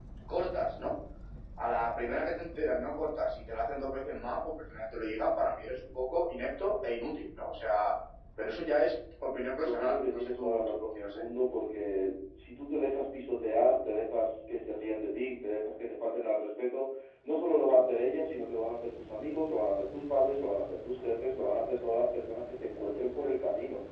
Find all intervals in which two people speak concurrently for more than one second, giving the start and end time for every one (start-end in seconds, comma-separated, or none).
9.6-11.2